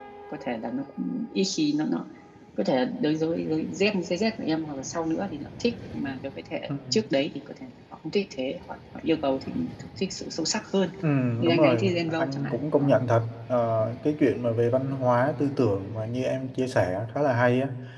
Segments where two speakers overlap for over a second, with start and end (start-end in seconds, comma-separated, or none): 11.4-13.0